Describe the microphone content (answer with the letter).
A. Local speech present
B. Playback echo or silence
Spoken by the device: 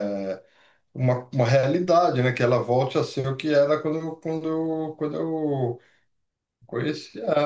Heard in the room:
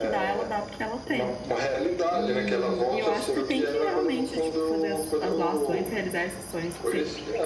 A